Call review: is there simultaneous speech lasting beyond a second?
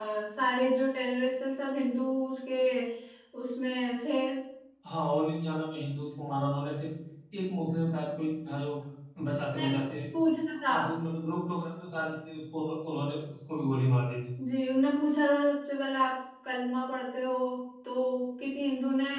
No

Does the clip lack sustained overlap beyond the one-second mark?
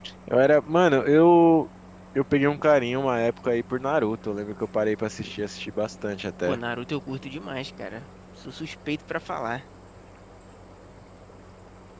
Yes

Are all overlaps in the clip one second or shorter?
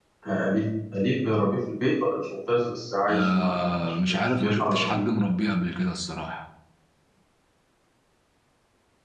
No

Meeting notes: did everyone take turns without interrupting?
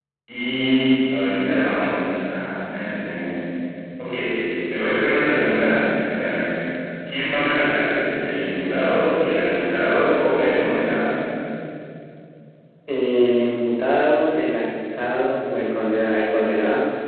Yes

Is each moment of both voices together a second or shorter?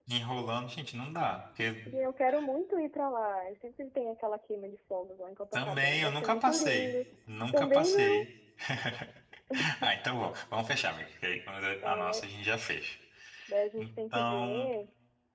No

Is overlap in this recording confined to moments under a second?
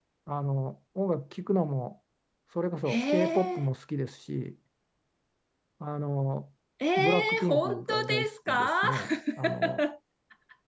No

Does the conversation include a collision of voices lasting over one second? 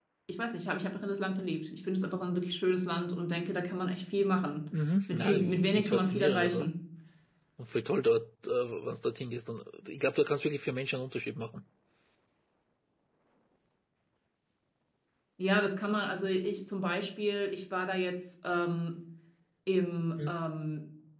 Yes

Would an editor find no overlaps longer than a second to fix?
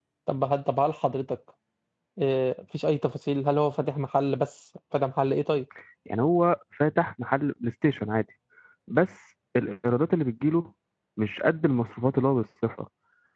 Yes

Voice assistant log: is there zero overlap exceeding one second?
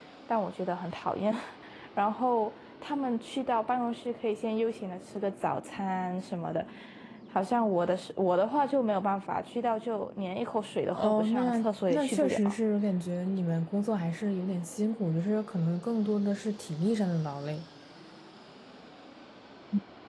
No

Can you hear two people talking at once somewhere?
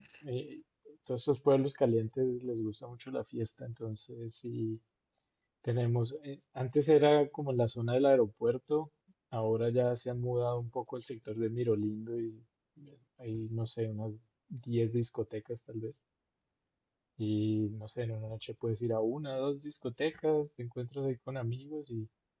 No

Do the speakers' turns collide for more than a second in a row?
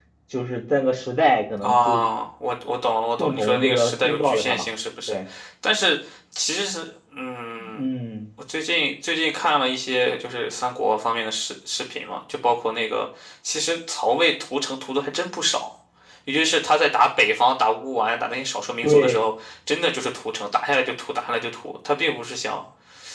Yes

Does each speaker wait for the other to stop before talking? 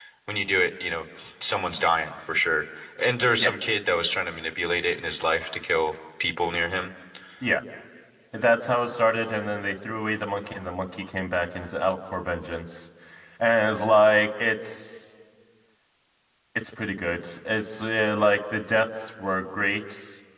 Yes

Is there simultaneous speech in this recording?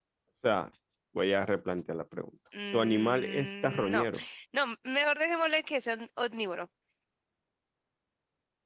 Yes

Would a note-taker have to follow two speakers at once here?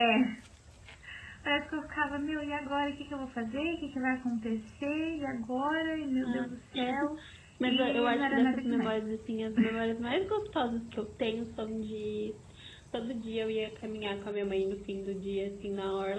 Yes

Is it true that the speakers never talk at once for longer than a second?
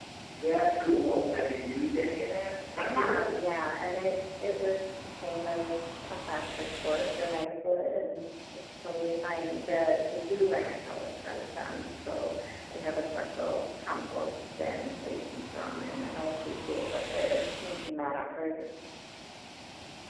Yes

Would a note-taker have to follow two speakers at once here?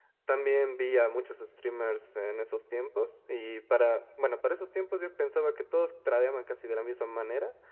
No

